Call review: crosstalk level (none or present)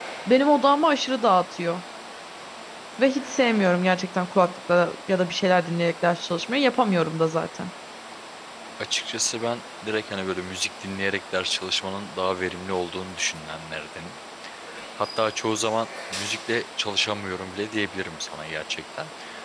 none